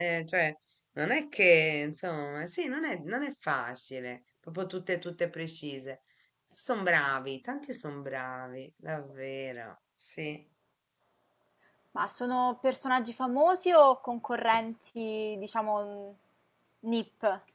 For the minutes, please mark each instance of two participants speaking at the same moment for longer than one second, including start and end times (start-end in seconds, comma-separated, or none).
none